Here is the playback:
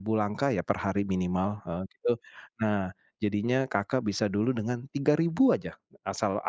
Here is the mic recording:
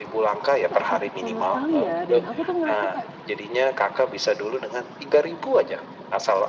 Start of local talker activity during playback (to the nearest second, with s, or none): 1 s